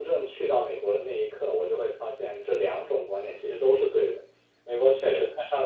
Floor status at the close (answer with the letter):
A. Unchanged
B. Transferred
A